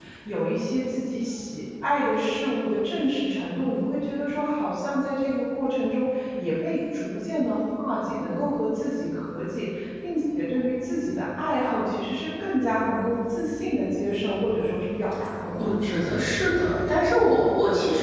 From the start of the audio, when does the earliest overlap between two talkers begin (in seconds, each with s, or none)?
none